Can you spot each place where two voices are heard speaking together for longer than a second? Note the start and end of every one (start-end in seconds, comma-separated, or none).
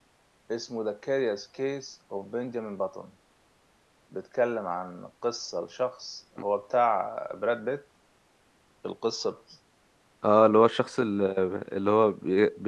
none